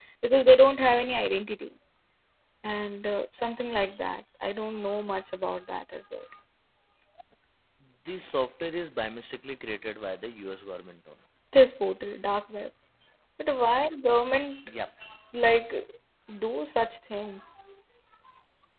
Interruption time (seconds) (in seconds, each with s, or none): none